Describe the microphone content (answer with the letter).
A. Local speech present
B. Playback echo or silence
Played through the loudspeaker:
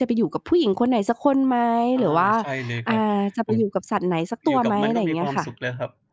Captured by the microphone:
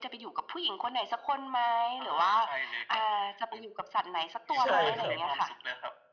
A